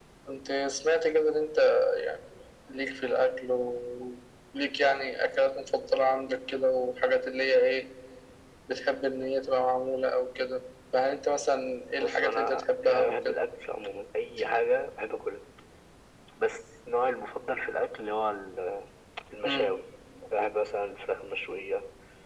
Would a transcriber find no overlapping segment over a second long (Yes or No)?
No